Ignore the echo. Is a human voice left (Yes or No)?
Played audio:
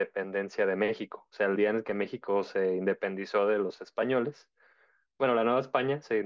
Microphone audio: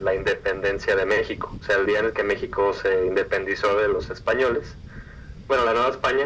No